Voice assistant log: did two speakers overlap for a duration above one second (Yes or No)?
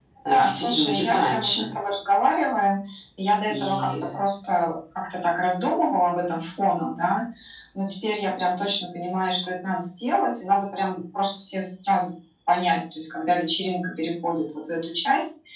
Yes